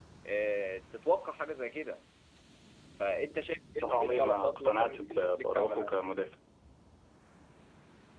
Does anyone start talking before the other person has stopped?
Yes, from 3.8 s

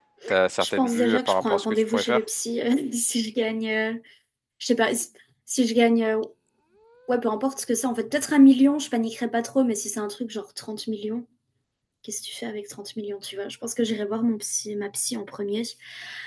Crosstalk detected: Yes, from 0.6 s

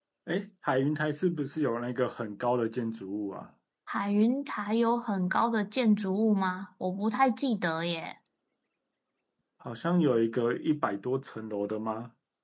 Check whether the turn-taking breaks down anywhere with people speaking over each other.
No

